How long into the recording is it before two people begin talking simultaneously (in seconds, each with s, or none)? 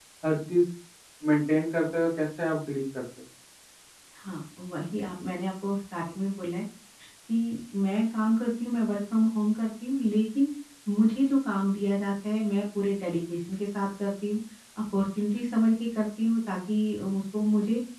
none